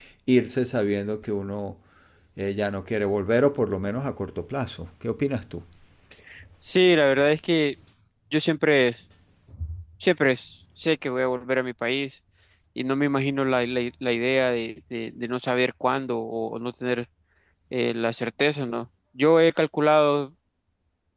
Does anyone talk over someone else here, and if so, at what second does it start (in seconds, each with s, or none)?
none